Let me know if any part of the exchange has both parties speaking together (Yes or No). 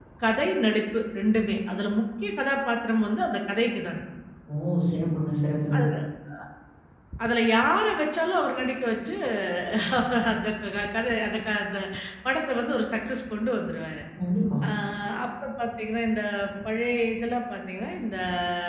No